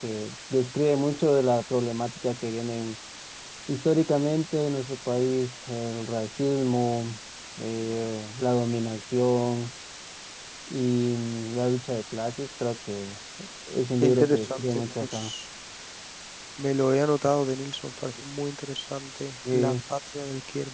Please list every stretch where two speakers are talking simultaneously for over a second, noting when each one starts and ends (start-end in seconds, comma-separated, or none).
14.0-15.3